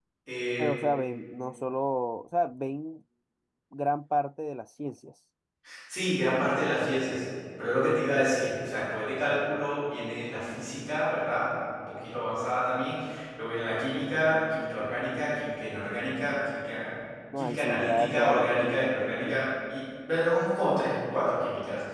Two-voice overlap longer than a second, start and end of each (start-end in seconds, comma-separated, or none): 17.4-19.5